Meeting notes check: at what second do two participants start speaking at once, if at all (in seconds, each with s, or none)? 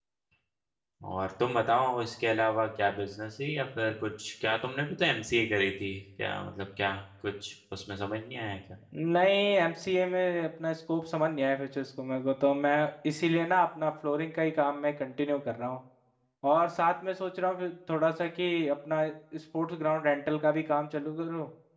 none